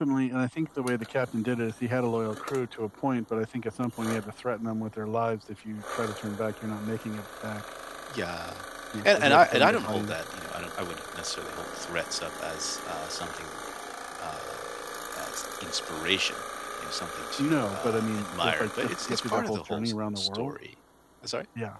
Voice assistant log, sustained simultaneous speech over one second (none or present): present